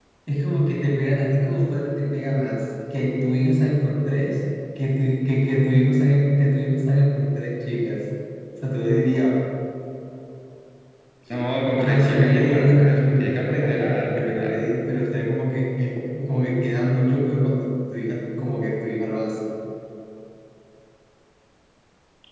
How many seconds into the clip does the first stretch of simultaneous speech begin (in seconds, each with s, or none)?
11.8 s